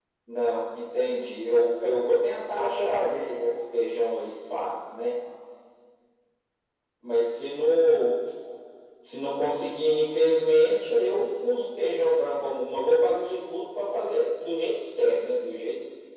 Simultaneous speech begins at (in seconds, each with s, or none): 1.8 s